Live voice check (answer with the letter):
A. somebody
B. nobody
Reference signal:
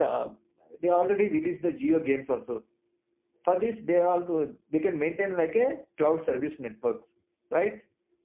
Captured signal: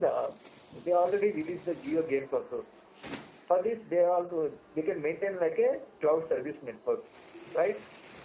B